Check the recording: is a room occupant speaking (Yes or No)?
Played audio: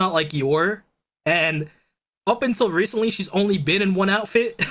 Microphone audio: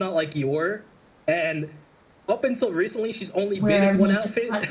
Yes